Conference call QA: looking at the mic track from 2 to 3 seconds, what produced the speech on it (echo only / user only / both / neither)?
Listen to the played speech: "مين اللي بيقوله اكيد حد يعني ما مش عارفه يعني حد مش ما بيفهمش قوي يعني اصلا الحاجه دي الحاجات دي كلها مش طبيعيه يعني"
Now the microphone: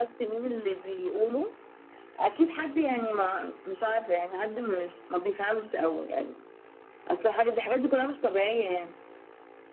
echo only